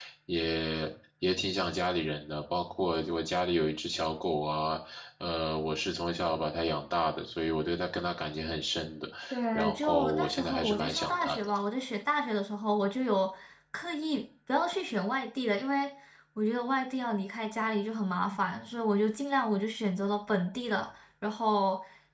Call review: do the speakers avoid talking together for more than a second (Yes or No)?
No